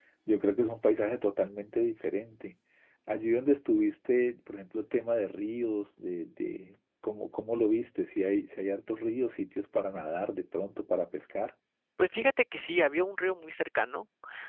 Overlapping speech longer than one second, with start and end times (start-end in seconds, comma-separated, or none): none